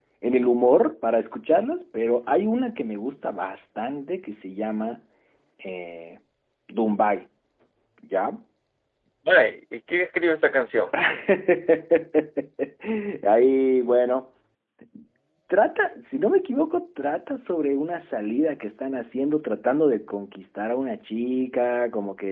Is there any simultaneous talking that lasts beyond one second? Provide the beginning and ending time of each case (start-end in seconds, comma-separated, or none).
none